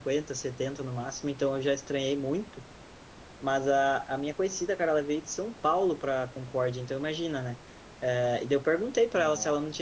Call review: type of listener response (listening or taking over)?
listening